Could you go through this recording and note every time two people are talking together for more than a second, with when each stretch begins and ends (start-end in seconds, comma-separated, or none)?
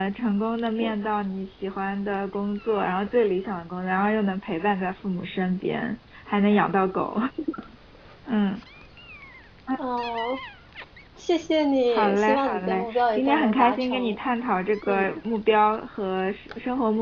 11.9-14.2